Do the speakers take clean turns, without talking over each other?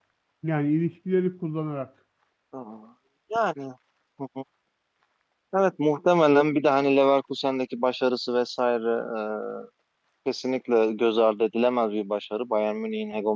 Yes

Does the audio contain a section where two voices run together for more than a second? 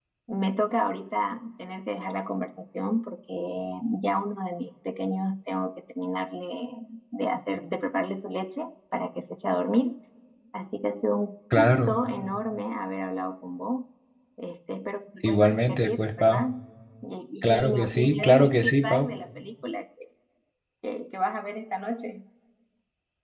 Yes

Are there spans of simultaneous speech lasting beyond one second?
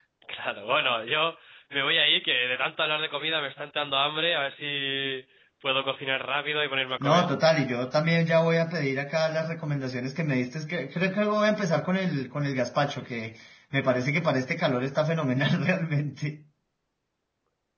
No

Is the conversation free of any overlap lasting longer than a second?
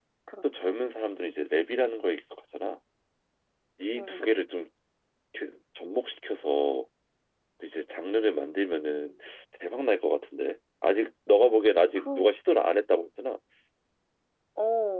Yes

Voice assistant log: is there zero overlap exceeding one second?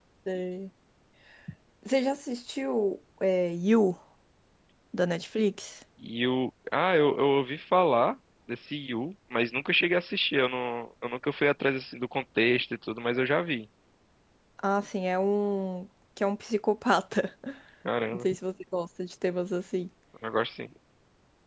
Yes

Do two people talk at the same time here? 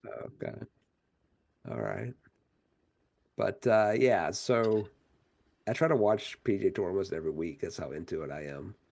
No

